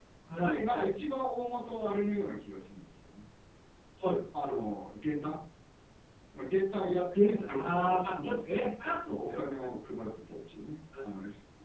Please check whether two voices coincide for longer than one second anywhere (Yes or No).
Yes